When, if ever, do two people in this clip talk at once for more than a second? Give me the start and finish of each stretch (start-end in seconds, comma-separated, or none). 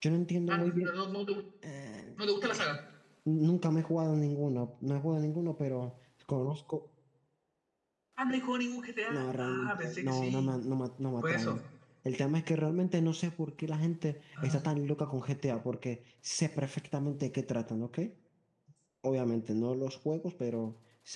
9.1-10.5